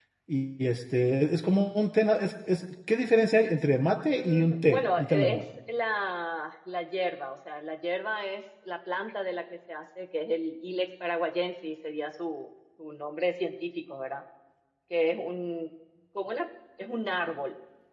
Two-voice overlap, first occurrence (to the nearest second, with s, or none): 4 s